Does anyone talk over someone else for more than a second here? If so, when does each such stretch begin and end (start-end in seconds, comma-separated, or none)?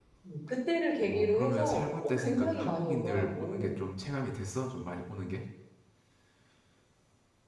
1.0-3.8